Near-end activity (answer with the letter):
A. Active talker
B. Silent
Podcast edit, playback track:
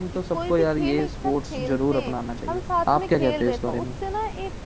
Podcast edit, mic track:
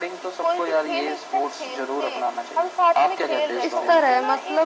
A